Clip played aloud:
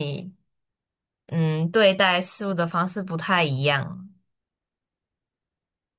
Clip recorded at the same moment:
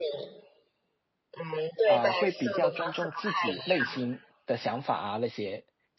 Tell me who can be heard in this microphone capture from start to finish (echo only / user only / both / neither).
both